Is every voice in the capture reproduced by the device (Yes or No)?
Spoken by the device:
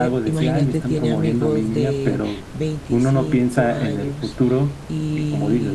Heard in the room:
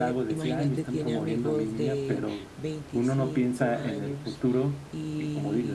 Yes